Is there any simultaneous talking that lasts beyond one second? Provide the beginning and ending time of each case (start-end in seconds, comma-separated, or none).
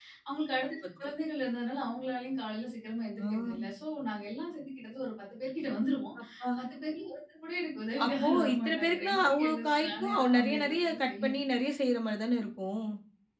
8.0-11.4